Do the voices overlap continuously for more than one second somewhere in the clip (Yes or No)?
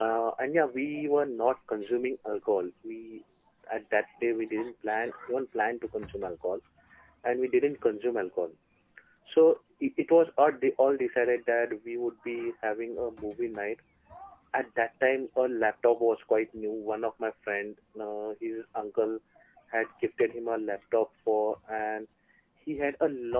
No